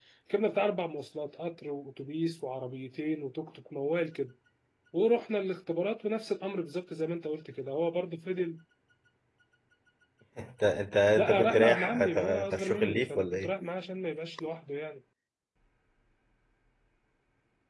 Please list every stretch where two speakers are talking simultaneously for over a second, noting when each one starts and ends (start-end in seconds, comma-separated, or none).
11.2-13.5